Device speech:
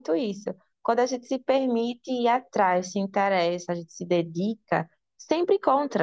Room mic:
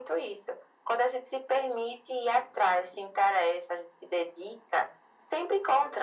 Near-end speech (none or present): none